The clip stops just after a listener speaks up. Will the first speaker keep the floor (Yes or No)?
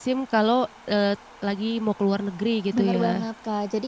No